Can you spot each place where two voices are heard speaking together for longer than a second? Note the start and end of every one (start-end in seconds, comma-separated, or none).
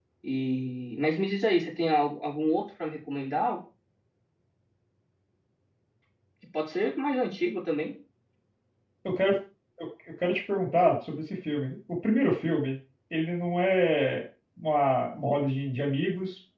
none